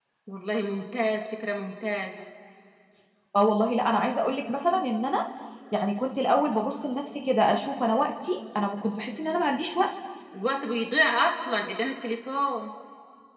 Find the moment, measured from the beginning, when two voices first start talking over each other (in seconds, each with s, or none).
none